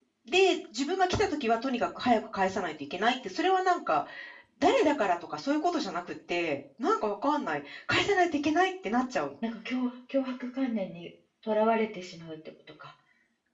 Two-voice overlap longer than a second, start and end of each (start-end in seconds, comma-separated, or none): none